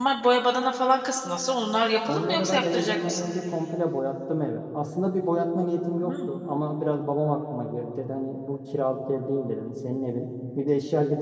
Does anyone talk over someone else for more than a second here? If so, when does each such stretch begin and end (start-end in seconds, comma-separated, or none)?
2.1-3.3